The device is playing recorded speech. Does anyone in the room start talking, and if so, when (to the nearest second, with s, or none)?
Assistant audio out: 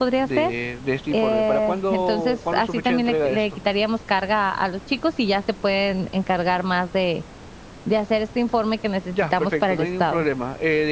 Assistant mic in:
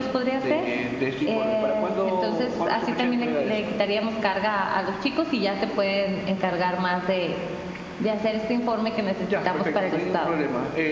none